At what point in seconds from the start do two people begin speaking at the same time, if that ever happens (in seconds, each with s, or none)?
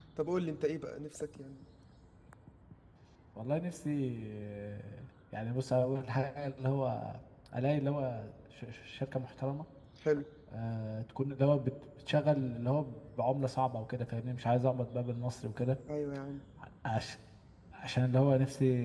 none